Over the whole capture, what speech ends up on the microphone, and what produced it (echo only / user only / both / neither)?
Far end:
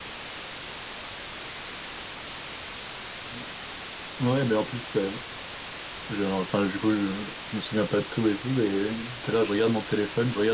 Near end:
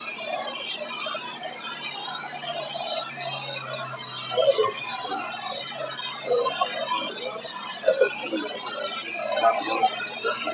echo only